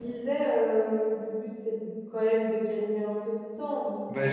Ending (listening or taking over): taking over